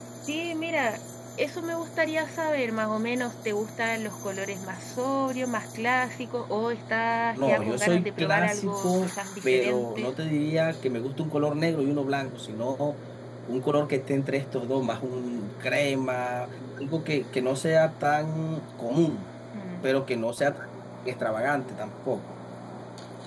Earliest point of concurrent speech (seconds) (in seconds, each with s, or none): 7.4 s